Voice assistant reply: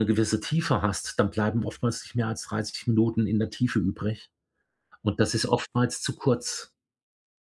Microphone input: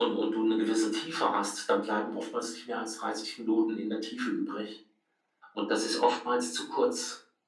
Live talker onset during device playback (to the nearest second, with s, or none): none